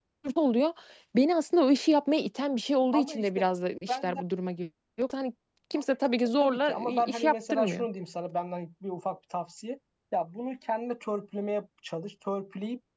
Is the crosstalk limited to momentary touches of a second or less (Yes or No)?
No